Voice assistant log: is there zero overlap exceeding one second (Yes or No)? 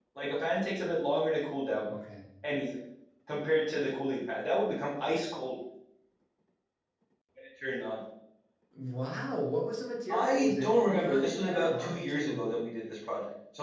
No